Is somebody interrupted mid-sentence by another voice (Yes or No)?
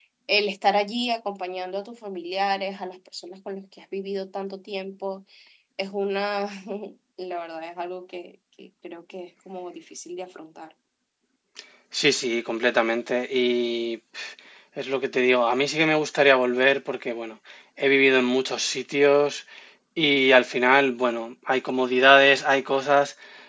No